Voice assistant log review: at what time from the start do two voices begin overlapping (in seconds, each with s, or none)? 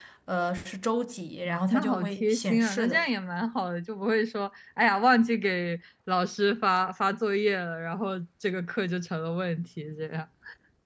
1.4 s